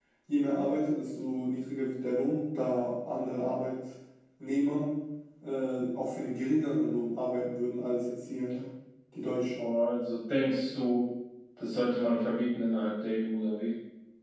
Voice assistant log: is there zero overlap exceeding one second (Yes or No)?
Yes